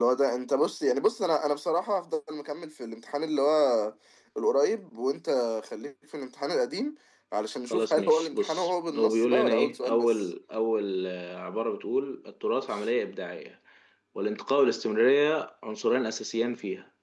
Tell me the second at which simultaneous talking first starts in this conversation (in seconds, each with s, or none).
7.7 s